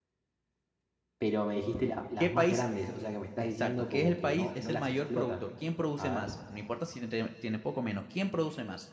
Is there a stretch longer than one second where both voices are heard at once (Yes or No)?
Yes